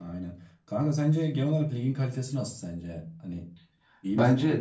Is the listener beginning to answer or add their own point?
Yes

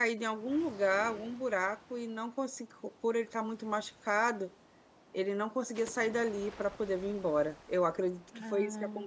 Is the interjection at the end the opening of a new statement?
No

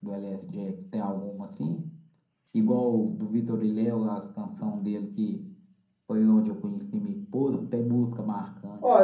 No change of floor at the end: No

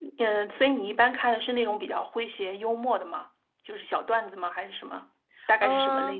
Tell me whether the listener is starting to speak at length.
Yes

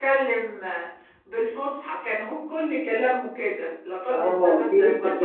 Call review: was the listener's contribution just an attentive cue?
No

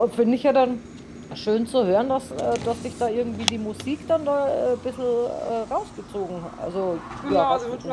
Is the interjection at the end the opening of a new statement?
Yes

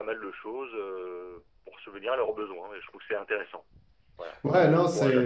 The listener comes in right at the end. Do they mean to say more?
Yes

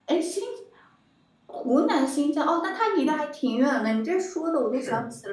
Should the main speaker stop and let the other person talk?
No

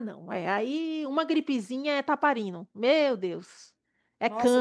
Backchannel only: No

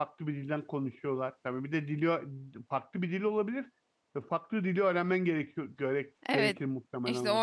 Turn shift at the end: Yes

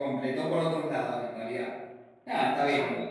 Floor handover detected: No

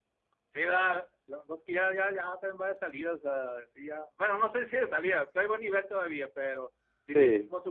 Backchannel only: Yes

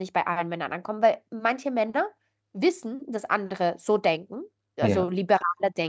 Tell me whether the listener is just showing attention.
Yes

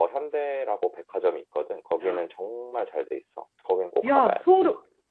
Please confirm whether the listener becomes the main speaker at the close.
Yes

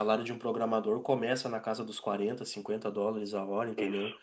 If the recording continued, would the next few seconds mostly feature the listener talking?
No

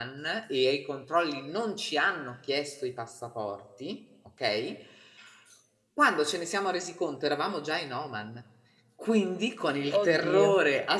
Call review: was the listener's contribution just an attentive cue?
Yes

